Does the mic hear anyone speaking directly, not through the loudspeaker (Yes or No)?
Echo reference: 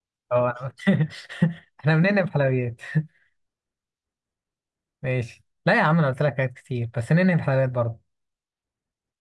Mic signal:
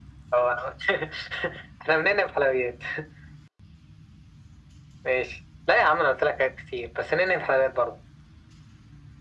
No